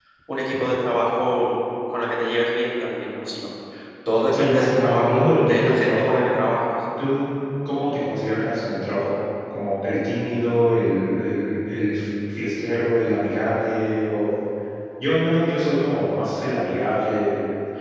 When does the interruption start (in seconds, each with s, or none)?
4.3 s